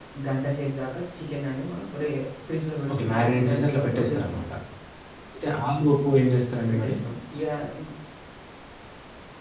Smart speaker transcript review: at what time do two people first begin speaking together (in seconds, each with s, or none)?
3.0 s